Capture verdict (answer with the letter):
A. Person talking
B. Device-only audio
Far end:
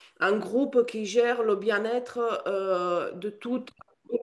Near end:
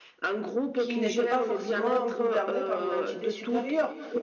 A